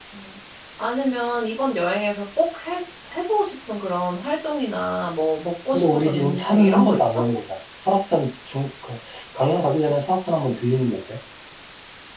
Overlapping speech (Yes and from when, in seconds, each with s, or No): Yes, from 5.7 s